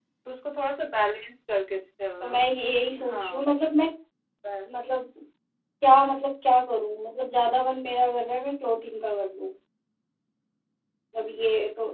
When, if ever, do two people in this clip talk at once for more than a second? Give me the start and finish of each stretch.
none

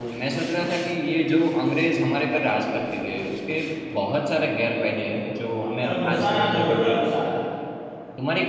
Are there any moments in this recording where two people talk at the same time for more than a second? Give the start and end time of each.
5.6-7.0

